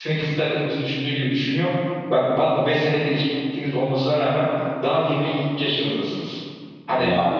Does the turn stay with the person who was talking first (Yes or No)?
Yes